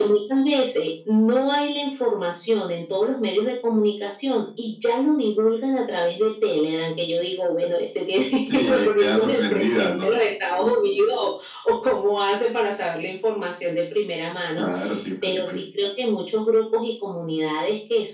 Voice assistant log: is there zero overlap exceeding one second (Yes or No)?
No